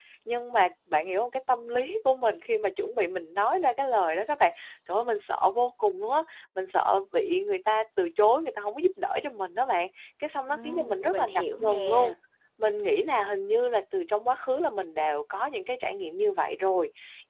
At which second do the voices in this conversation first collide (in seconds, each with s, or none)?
10.5 s